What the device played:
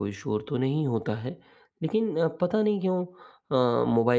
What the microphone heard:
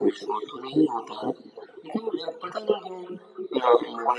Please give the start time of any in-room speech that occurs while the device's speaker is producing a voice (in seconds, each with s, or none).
none